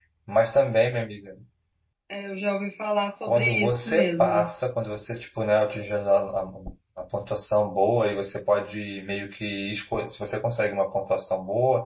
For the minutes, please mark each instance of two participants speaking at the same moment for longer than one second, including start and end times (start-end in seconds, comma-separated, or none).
3.2-4.5